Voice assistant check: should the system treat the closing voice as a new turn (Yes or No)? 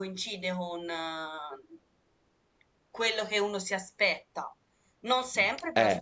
No